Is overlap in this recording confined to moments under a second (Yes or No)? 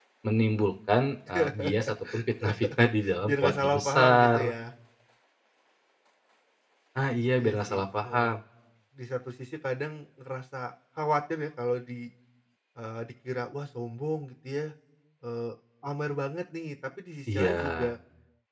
No